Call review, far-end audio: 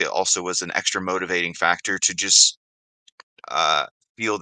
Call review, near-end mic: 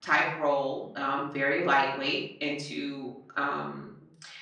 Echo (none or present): none